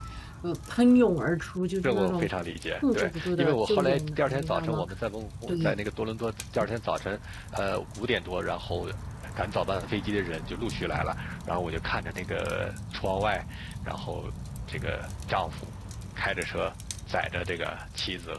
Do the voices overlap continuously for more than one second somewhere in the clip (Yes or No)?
Yes